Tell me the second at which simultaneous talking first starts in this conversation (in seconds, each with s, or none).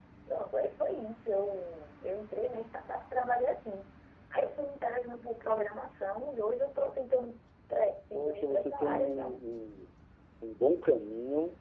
8.1 s